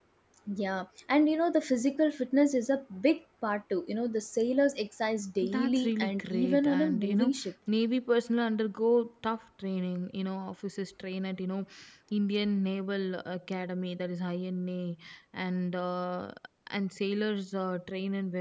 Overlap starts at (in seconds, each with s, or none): 5.4 s